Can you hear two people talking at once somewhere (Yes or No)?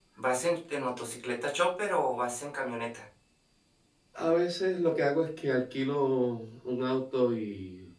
No